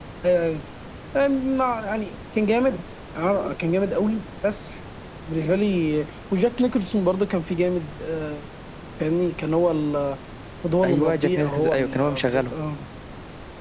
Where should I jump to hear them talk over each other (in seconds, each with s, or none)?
10.8 s